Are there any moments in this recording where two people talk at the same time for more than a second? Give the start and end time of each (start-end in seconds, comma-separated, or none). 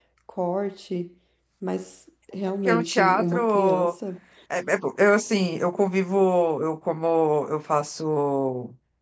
2.7-3.9